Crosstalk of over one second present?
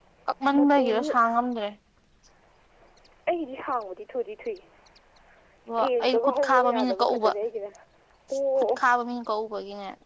Yes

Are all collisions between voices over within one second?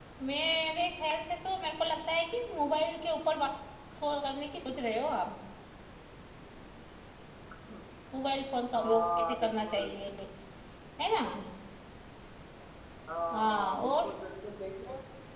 No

